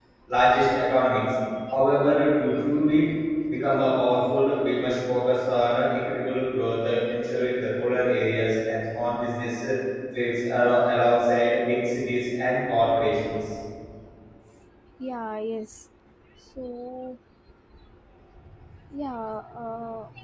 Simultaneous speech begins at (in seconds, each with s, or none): none